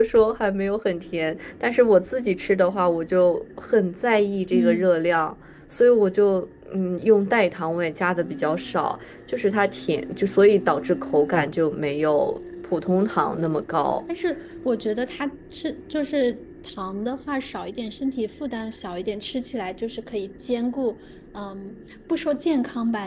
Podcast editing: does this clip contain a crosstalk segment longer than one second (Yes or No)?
No